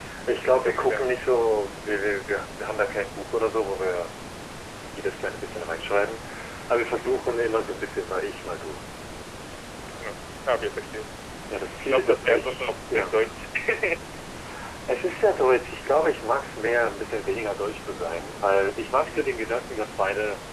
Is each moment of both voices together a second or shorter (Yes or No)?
No